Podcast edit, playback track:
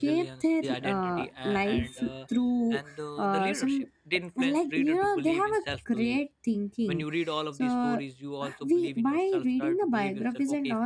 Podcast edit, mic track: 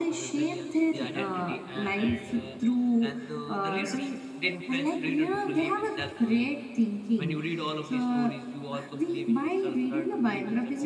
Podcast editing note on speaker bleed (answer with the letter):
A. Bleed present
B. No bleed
A